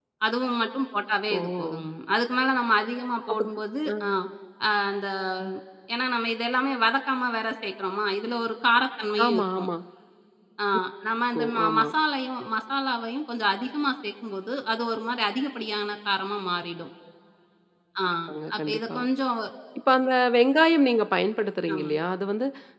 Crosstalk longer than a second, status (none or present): none